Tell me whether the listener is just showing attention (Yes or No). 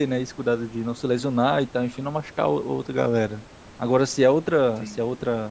Yes